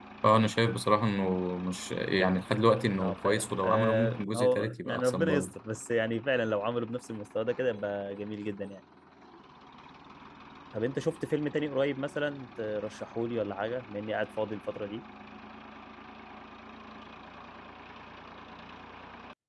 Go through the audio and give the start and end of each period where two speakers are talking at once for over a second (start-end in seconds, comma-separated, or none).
3.0-5.5